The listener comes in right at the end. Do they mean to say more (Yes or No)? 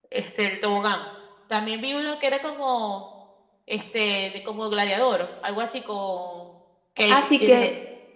Yes